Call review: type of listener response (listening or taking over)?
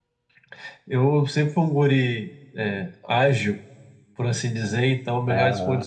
listening